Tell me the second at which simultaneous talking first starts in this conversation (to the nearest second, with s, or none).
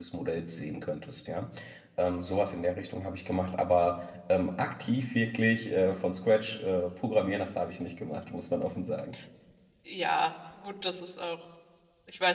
none